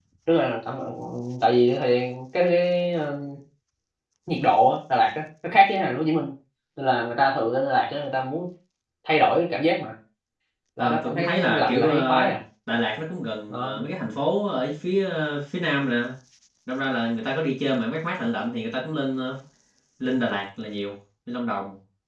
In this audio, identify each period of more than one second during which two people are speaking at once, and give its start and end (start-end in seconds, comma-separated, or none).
10.8-12.3